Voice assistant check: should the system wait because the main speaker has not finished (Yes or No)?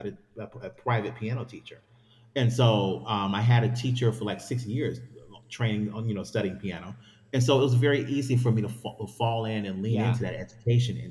Yes